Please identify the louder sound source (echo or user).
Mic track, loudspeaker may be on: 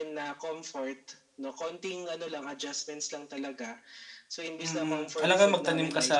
user